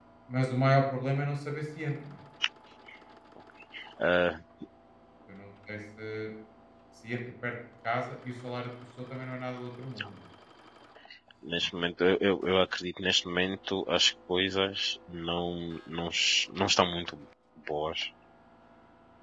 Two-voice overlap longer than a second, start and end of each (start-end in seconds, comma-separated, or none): none